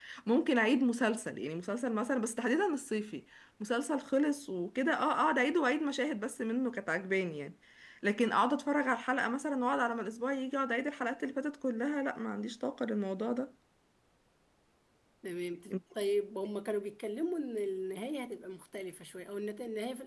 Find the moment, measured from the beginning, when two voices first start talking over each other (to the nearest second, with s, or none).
none